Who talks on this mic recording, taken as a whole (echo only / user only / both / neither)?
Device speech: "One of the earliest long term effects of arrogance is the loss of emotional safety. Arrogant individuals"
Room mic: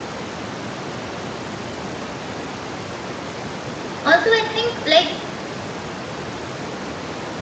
user only